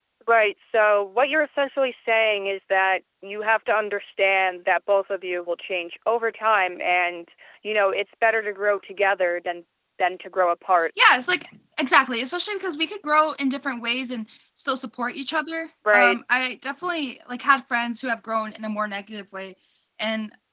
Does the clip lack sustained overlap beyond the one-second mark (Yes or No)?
Yes